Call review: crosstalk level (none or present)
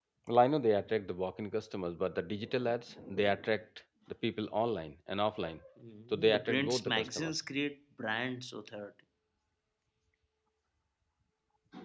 present